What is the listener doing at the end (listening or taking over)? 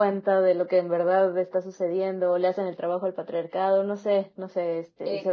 taking over